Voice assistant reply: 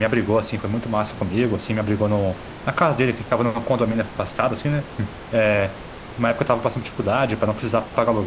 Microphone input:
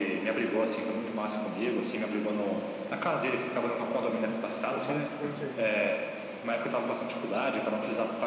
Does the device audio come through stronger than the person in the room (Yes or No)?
Yes